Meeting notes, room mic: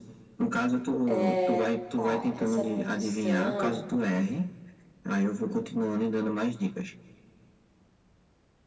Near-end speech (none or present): present